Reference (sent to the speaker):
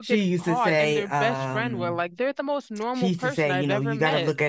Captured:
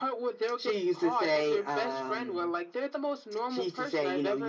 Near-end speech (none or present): none